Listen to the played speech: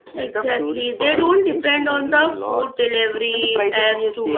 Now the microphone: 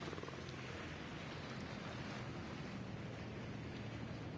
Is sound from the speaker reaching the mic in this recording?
No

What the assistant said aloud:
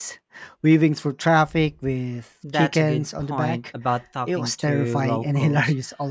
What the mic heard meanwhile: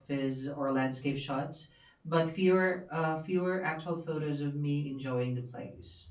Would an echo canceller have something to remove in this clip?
No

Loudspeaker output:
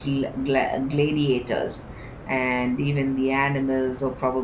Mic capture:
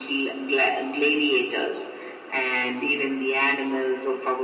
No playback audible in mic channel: No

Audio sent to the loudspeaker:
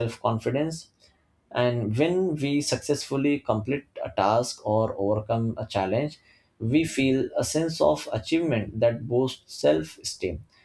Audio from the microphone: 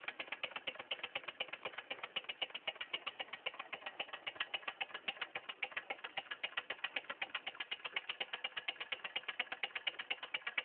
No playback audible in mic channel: Yes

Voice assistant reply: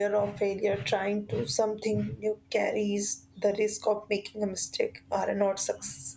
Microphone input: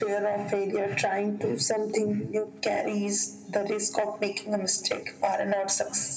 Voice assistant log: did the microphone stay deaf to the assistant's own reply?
No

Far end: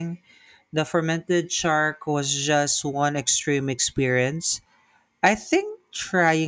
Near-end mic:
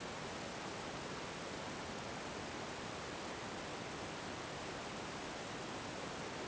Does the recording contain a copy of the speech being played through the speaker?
No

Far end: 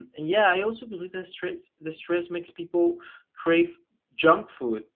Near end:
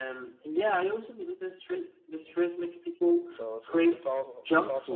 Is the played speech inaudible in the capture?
No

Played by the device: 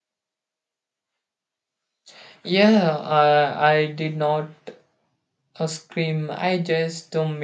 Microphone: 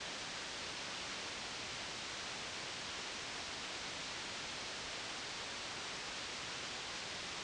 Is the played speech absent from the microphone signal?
Yes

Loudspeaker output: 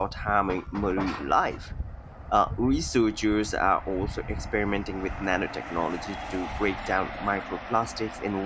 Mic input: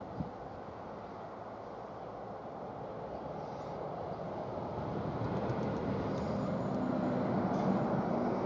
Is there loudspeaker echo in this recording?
No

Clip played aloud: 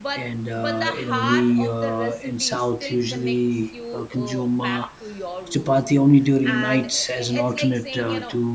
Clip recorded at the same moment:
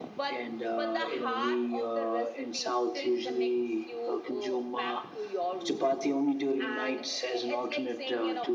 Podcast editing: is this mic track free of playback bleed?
No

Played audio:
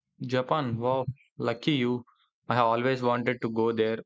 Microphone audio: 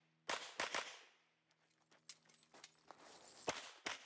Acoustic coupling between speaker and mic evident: No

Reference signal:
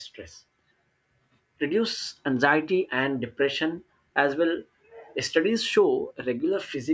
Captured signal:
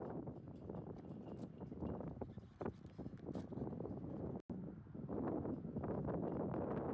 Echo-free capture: Yes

